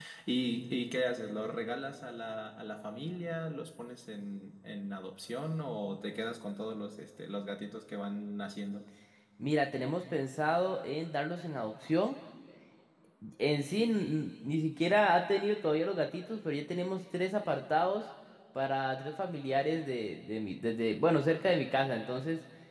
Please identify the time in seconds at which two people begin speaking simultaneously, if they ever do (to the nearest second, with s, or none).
none